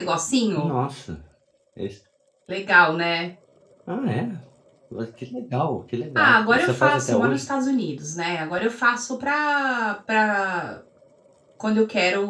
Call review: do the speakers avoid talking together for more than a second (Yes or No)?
No